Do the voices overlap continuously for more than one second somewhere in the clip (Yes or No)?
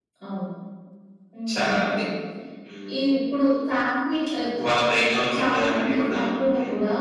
Yes